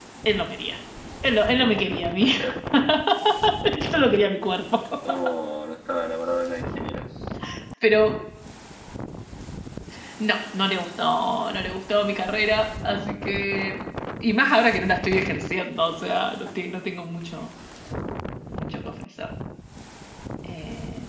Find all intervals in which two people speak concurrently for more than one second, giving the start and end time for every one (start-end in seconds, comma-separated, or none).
none